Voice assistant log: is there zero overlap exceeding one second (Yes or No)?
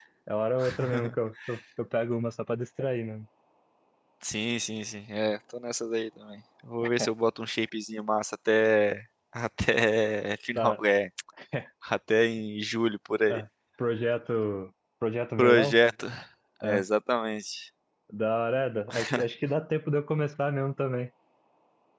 Yes